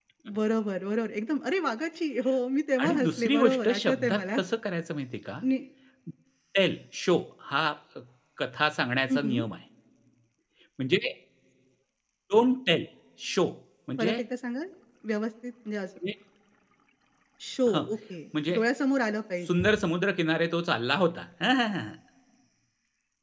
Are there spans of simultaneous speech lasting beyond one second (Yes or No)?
Yes